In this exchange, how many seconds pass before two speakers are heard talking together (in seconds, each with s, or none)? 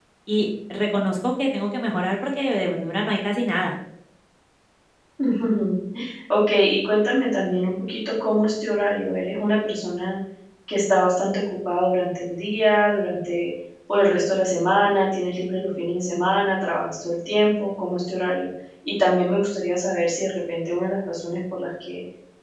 none